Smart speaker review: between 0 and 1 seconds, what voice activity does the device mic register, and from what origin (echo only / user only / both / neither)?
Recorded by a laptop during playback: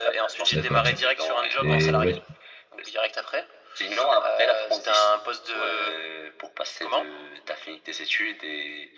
both